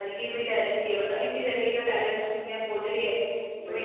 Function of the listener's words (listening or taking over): listening